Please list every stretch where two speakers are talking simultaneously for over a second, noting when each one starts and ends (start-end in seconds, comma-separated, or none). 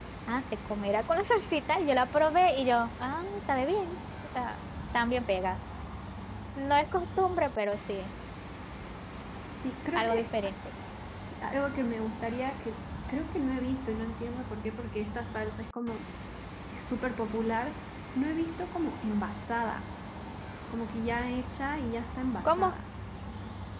none